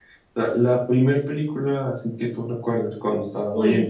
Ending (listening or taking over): taking over